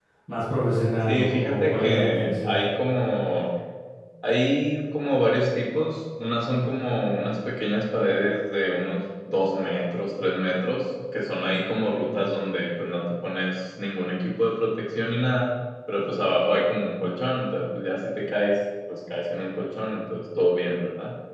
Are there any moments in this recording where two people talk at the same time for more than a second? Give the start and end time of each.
1.1-2.6

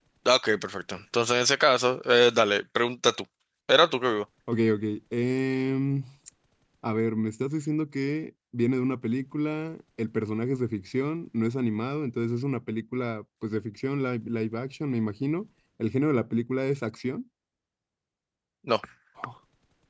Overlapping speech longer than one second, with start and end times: none

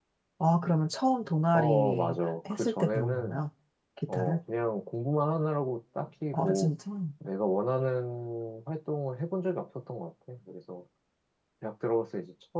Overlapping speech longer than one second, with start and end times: 1.5-3.4

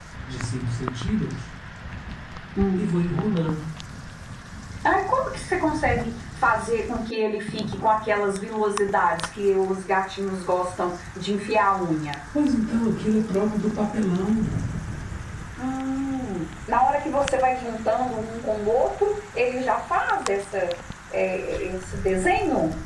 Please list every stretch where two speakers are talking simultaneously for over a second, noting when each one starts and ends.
none

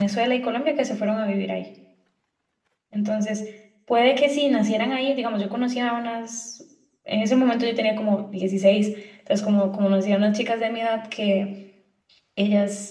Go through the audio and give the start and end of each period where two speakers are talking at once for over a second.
none

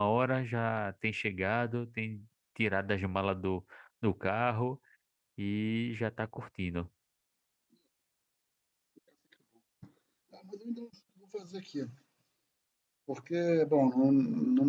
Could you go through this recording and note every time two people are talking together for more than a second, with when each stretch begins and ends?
none

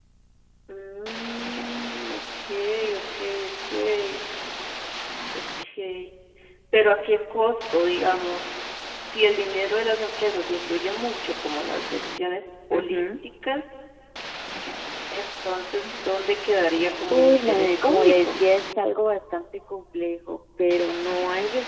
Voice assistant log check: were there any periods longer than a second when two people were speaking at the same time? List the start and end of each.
17.1-18.4

